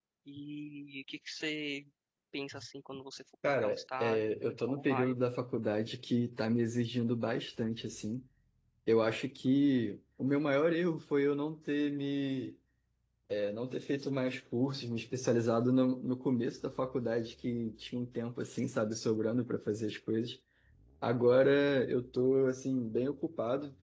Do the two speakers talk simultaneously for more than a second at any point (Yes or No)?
Yes